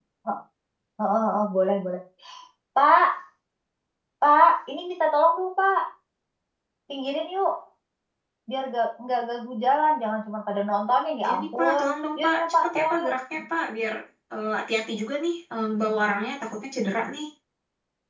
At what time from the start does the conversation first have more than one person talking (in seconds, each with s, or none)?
11.2 s